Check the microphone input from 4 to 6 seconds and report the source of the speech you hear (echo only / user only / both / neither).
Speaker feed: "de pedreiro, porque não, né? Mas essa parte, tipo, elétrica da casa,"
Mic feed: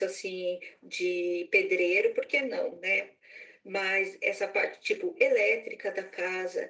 echo only